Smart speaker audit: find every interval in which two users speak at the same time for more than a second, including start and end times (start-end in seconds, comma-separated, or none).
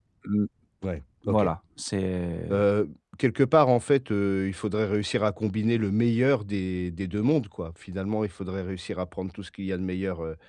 none